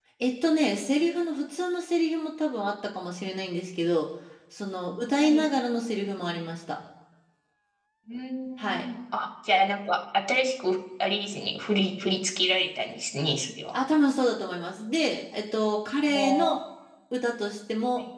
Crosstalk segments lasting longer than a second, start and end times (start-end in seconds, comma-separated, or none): none